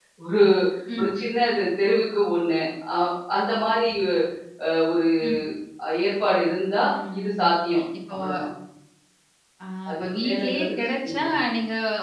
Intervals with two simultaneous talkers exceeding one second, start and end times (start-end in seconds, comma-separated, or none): 9.9-11.3